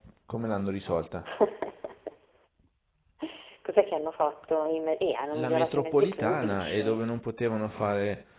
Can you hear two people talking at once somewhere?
Yes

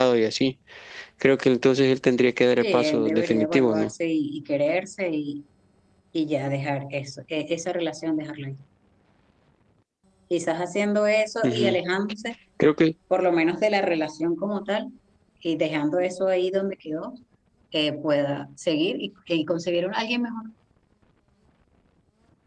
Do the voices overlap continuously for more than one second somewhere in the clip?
Yes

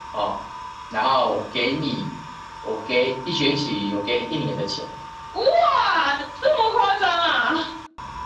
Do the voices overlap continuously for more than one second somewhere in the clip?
No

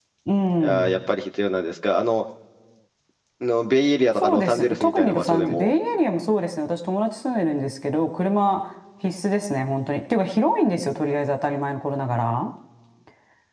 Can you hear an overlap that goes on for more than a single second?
Yes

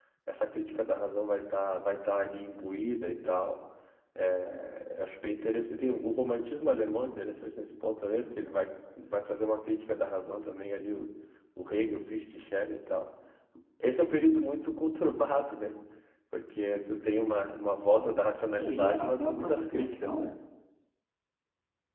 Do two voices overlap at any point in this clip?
Yes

